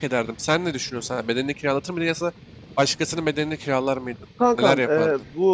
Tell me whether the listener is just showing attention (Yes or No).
No